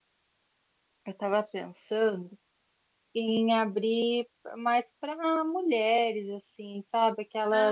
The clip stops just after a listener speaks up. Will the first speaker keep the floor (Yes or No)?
Yes